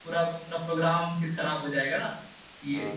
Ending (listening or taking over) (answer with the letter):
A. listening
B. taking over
B